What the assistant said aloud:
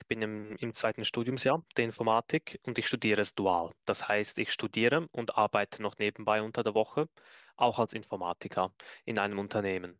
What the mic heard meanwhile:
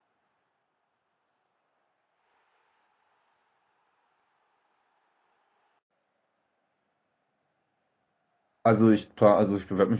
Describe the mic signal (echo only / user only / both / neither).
user only